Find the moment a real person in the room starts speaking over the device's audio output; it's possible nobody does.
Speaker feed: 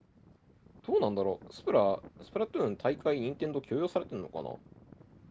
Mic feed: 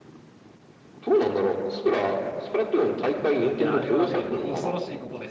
3.5 s

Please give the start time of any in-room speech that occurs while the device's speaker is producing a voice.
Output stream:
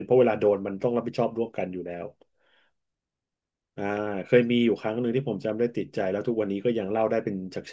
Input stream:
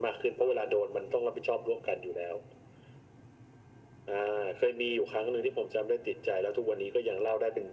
none

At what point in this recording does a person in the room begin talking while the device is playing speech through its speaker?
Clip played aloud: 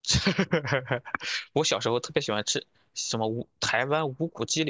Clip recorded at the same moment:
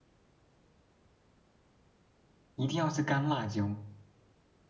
2.5 s

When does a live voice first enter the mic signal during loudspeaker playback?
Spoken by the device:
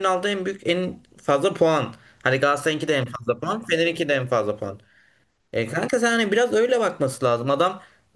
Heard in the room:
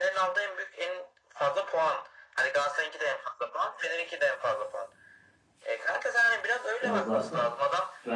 6.8 s

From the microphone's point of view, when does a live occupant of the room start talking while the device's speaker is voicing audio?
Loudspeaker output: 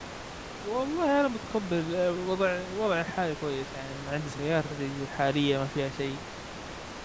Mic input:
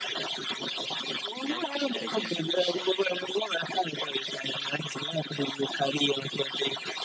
1.4 s

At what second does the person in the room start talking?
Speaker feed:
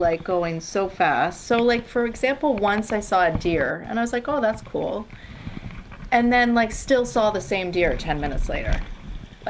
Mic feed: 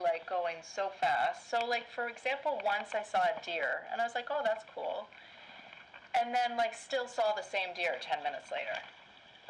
none

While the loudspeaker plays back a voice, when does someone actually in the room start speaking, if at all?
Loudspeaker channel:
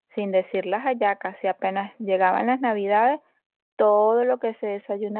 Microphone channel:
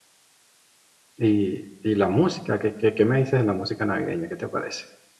1.2 s

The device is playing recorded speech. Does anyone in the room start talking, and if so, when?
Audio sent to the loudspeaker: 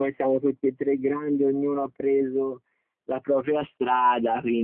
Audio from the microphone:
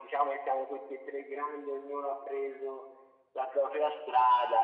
none

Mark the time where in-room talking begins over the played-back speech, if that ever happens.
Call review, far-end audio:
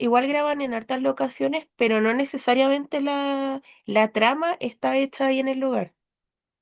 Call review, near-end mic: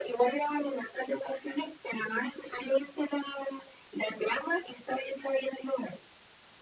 none

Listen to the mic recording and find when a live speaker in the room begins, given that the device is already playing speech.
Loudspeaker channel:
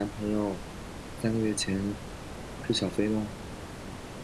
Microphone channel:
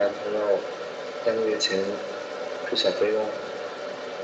none

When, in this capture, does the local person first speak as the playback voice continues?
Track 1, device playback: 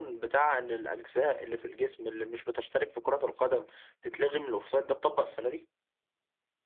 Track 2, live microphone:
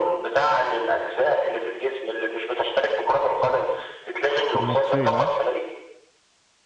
4.5 s

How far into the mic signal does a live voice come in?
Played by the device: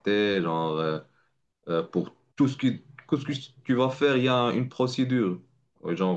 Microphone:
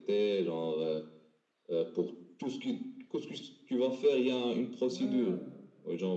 4.9 s

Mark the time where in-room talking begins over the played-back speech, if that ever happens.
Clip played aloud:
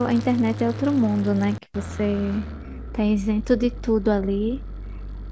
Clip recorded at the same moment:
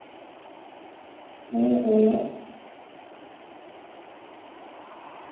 1.5 s

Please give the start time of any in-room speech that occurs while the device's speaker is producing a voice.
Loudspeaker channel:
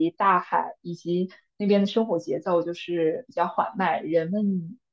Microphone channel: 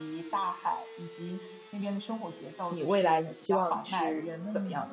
2.7 s

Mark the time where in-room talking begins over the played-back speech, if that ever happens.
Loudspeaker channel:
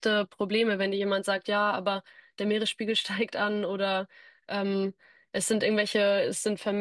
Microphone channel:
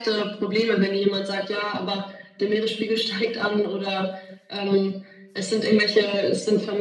none

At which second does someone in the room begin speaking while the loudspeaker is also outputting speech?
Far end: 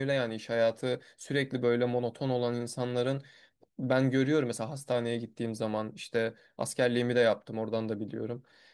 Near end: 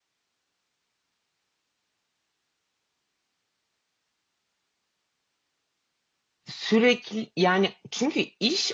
6.5 s

